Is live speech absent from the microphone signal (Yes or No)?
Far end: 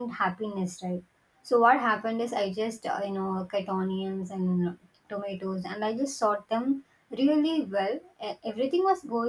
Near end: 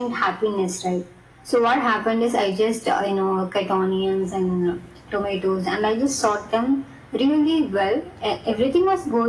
Yes